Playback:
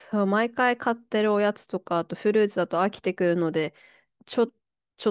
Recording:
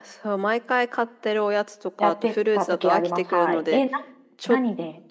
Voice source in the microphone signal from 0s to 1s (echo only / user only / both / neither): echo only